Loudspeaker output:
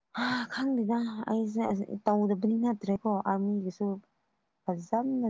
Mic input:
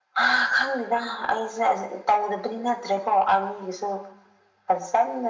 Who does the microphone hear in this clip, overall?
echo only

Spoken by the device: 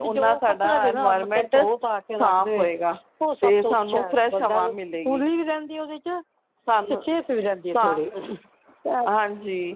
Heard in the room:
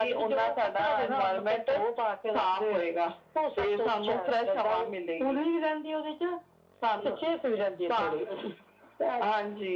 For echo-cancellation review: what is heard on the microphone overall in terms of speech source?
echo only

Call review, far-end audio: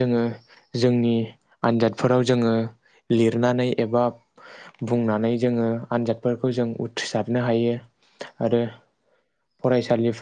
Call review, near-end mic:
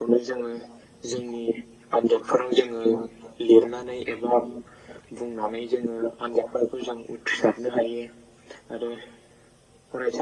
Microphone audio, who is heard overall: echo only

